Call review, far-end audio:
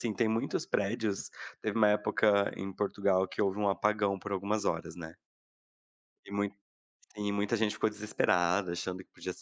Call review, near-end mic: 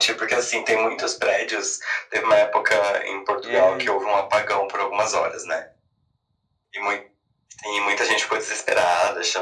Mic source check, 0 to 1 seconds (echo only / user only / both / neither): echo only